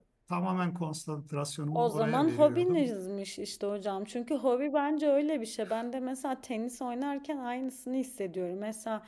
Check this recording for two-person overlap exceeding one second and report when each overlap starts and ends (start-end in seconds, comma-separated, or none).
1.7-2.9